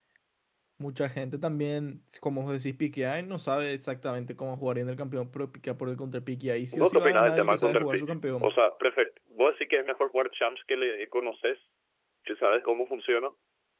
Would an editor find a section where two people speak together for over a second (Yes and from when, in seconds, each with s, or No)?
Yes, from 6.7 s